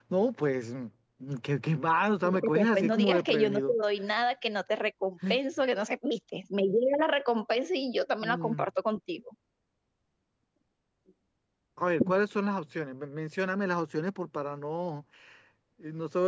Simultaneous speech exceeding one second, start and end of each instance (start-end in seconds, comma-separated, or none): 2.2-3.7